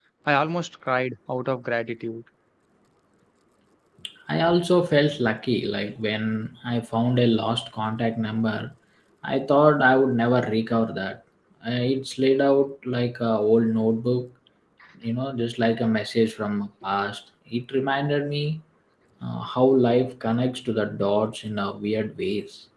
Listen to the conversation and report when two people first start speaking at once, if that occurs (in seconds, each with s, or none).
none